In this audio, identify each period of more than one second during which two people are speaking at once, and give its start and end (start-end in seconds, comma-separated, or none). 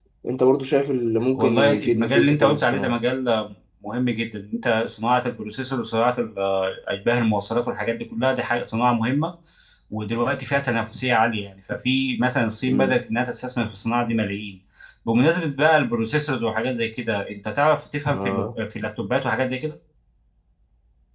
1.4-3.0